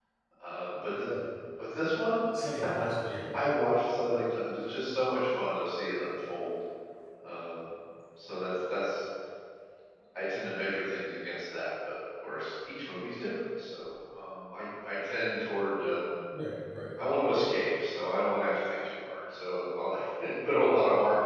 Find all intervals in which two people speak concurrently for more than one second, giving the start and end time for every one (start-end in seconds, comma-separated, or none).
none